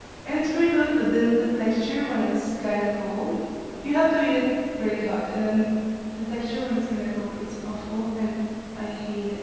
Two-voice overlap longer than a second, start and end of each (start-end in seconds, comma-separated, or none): none